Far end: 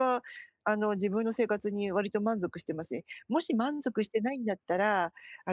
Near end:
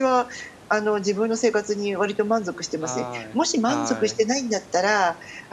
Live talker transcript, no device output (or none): はい、はい。